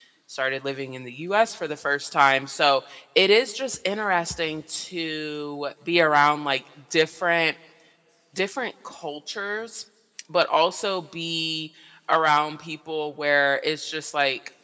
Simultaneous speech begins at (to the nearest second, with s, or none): none